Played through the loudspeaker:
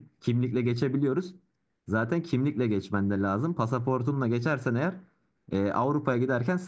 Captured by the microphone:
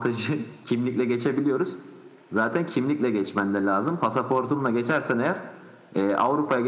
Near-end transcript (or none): none